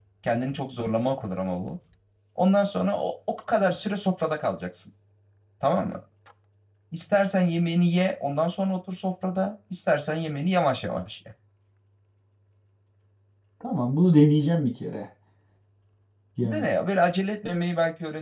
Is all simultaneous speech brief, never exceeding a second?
Yes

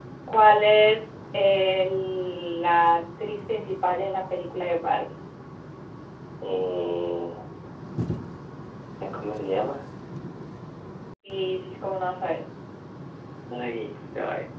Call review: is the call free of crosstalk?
Yes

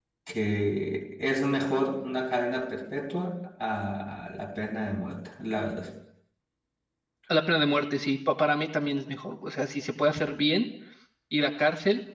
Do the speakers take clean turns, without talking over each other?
Yes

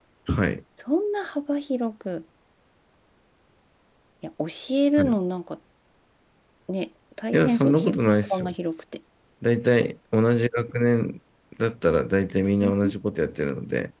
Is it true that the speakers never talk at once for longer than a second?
No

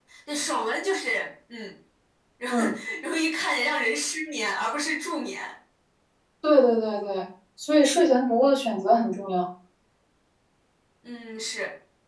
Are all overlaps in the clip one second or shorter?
Yes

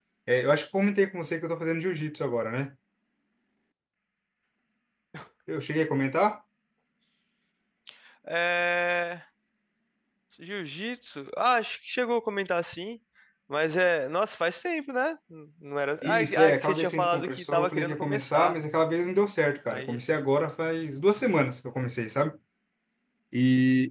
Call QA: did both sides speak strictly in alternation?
No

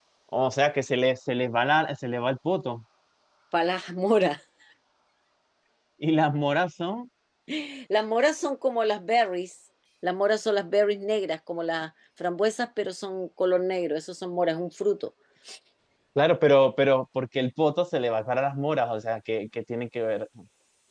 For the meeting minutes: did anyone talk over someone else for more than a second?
No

